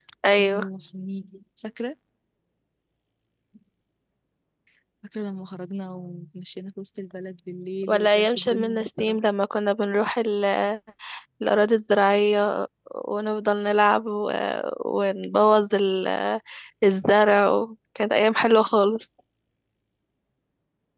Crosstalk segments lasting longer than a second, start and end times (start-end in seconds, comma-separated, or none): 7.9-9.2